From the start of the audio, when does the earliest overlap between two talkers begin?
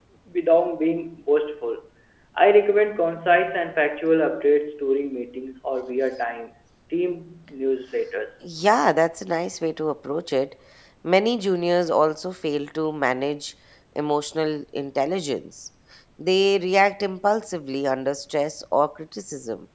none

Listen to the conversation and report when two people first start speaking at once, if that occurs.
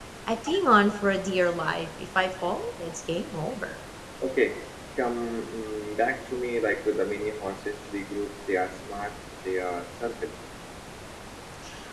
none

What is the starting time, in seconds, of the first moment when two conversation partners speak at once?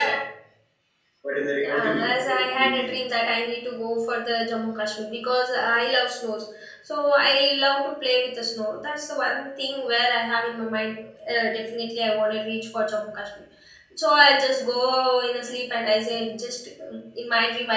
1.6 s

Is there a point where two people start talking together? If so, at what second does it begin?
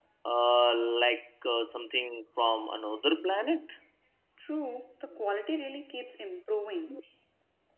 none

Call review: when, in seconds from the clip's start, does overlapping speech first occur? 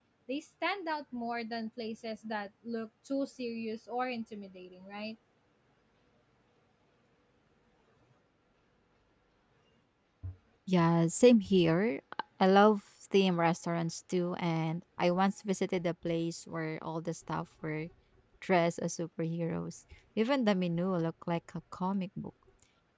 none

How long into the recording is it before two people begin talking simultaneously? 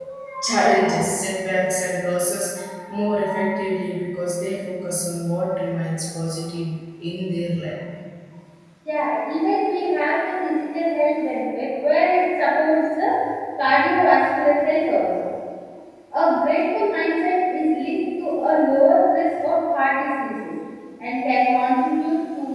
none

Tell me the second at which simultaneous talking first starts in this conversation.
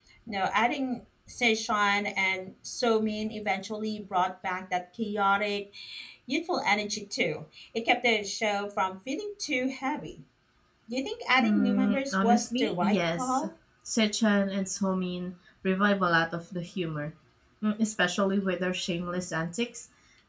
11.4 s

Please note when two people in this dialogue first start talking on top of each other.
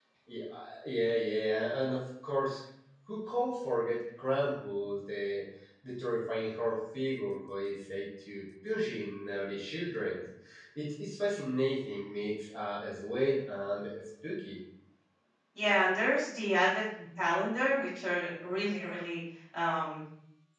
none

